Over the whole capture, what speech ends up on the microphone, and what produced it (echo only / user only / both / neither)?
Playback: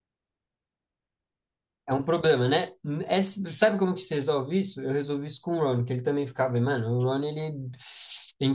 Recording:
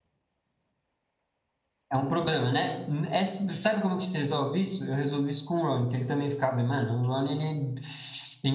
echo only